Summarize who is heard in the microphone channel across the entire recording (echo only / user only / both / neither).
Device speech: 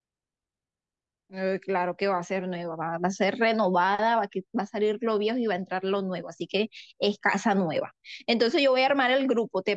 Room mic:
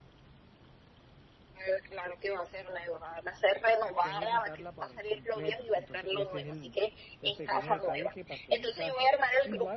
both